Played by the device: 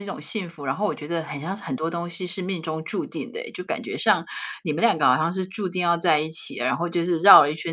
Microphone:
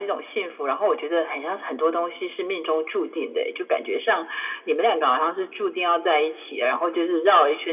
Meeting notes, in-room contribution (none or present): none